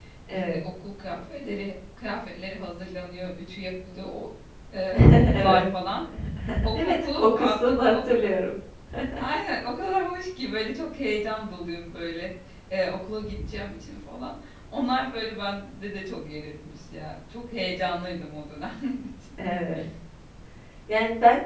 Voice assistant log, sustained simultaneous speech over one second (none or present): present